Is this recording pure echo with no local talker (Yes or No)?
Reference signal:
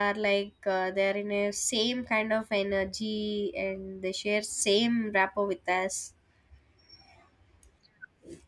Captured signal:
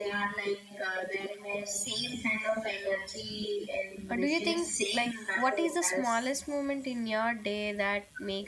No